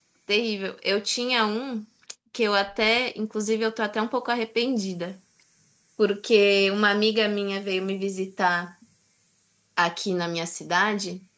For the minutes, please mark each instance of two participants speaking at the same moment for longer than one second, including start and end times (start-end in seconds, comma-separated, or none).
none